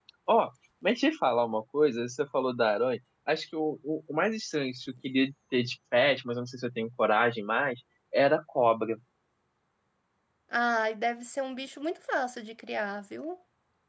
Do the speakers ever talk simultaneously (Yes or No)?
No